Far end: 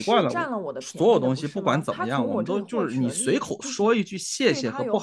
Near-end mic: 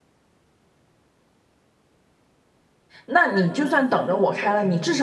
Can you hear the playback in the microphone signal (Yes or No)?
No